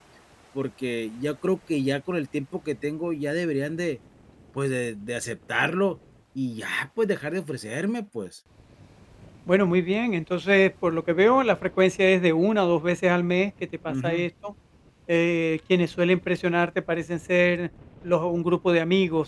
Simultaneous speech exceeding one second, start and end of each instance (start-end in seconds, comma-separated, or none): none